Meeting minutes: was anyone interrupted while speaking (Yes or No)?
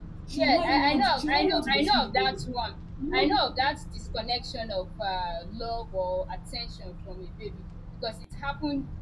Yes